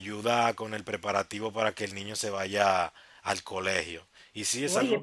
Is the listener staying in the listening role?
No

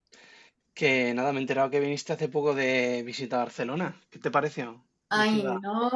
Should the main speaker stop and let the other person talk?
Yes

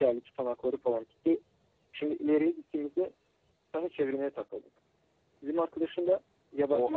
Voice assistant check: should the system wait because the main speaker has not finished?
No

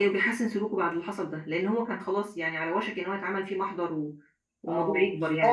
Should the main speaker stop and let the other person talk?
Yes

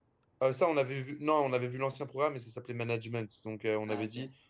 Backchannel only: Yes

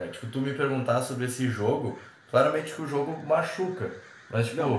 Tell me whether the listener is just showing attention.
Yes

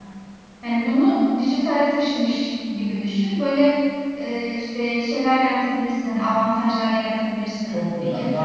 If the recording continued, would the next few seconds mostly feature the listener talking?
Yes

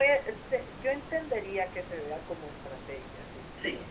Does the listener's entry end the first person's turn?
No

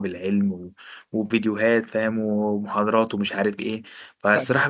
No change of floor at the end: Yes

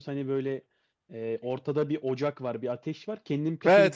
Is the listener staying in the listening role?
No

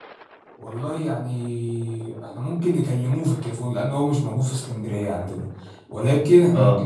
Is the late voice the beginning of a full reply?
No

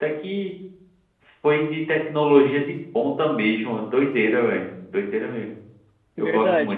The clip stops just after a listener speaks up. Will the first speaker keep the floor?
No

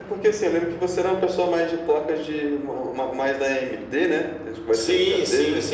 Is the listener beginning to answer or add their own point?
Yes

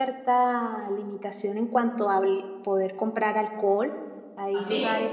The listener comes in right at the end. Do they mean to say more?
No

